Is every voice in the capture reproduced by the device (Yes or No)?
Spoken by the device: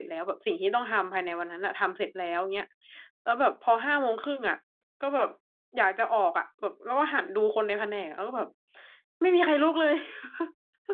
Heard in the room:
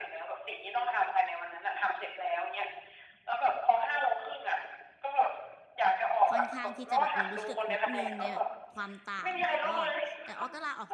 No